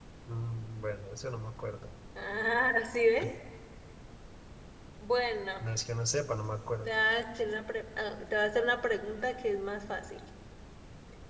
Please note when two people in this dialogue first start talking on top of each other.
none

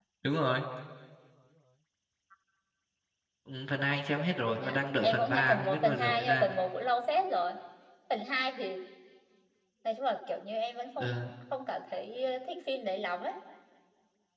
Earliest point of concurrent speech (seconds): 4.6 s

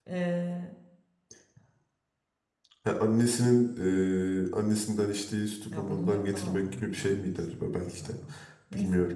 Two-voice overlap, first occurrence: 5.7 s

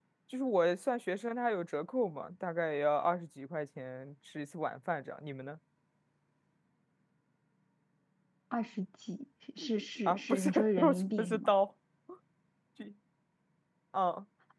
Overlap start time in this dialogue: 10.1 s

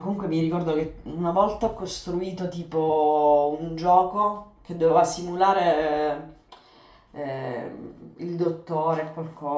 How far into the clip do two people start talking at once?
none

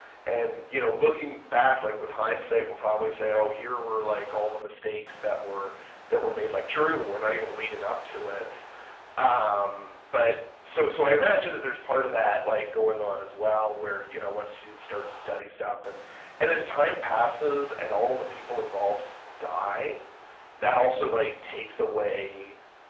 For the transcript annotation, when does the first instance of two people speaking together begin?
none

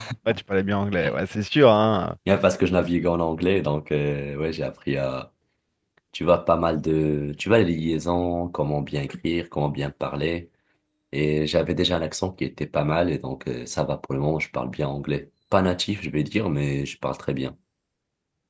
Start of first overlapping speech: none

